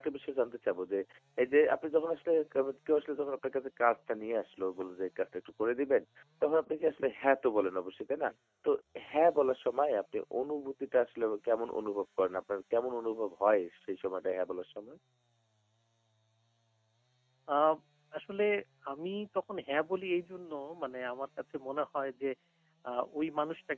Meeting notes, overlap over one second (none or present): none